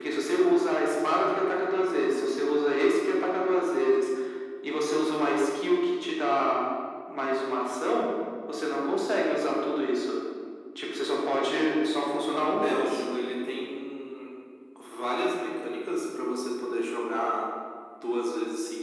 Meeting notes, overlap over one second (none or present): none